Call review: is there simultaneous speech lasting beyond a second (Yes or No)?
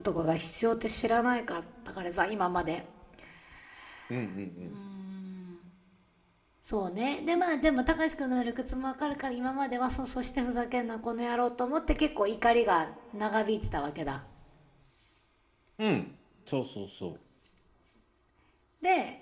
No